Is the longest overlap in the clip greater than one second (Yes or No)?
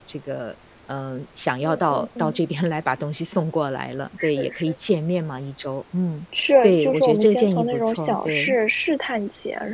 Yes